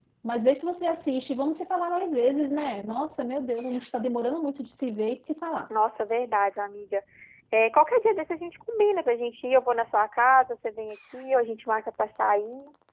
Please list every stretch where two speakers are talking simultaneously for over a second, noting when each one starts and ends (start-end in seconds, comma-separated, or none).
none